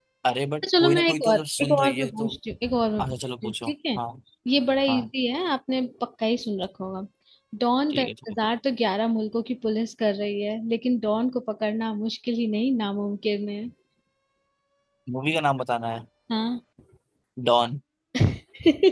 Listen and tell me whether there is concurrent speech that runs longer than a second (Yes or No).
Yes